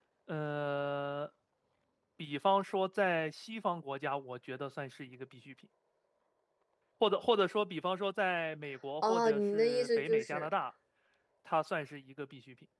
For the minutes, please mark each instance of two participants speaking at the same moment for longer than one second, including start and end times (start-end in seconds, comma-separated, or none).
9.1-10.5